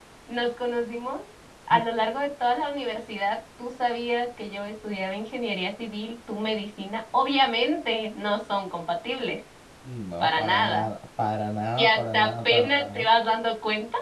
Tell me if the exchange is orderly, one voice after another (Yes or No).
No